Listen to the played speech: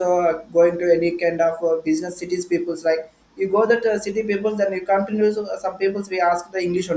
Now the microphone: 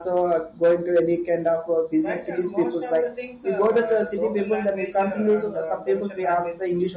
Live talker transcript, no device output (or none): right and most of the things uh, local language uh, and uh, professional language